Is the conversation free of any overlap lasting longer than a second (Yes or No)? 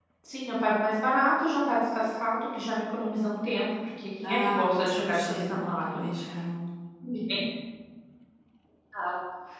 No